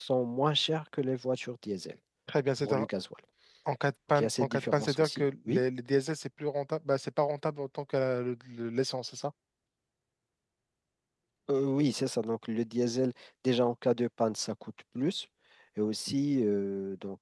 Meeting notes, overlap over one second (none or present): present